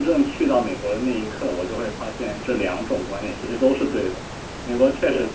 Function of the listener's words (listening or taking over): listening